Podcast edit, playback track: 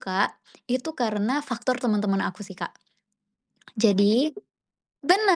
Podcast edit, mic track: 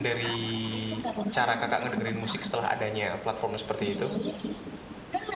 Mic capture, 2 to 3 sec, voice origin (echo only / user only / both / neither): both